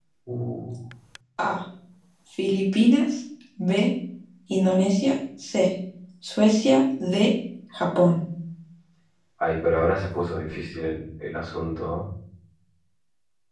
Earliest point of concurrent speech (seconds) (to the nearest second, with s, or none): none